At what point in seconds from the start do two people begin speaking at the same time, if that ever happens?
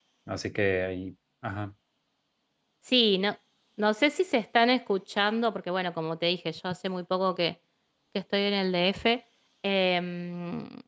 none

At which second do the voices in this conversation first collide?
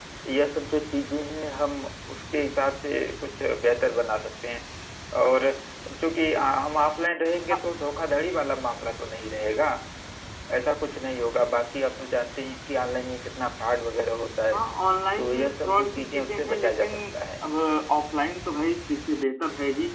15 s

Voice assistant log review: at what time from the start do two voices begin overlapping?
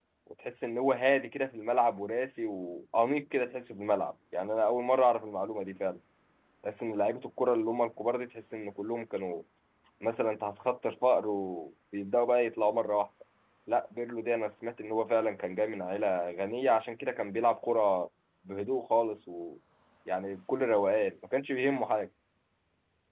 none

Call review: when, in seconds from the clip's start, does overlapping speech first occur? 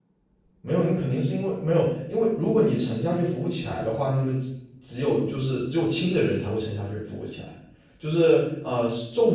none

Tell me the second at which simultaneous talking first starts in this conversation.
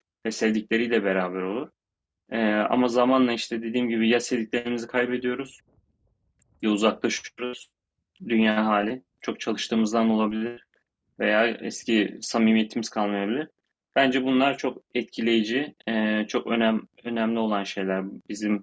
none

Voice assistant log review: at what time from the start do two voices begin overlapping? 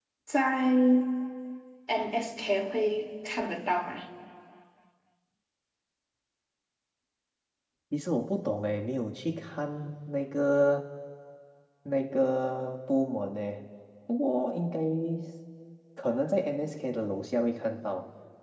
none

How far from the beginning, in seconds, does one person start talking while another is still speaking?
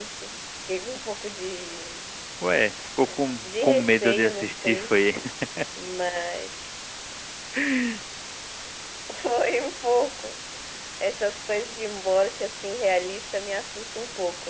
3 s

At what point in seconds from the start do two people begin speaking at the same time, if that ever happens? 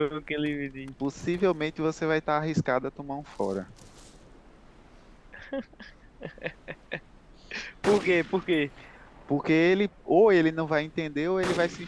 none

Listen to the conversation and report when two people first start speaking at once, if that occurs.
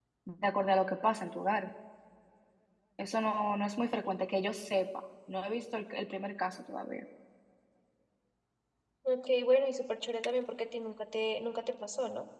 none

